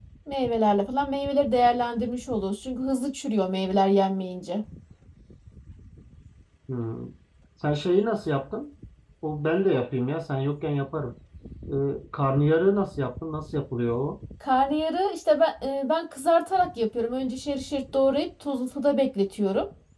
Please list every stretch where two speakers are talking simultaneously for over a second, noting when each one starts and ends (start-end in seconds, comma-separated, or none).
none